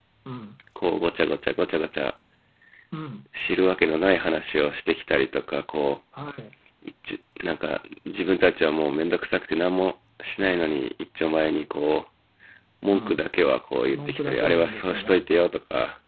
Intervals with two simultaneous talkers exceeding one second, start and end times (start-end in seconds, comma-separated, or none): 13.9-15.2